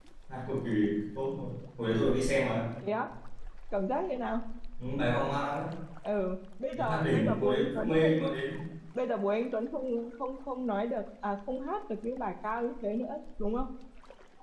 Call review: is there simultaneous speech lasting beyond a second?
Yes, from 6.8 s

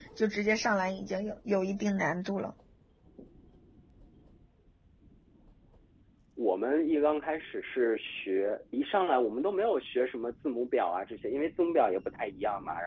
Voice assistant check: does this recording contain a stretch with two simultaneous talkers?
No

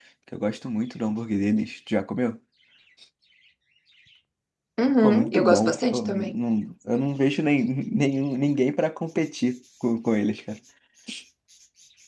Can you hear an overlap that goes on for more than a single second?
Yes, from 5.0 s

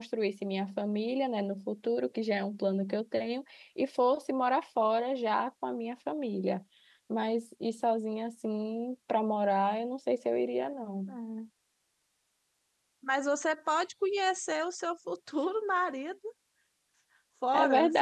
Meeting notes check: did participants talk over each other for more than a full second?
No

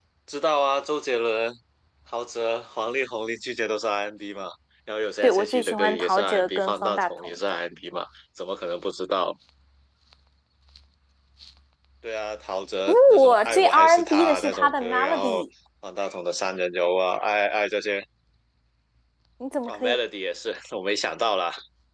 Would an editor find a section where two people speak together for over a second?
Yes, from 5.2 s

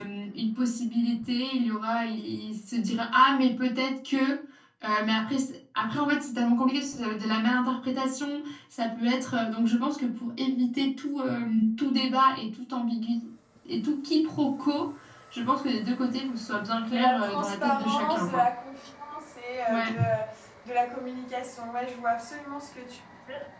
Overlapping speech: Yes, from 16.9 s

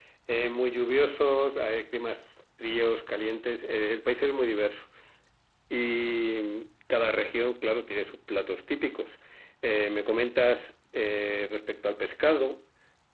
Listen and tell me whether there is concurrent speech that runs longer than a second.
No

